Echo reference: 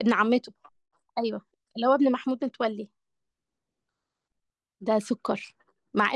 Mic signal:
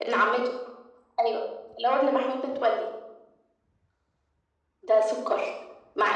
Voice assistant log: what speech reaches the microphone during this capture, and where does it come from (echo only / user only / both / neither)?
echo only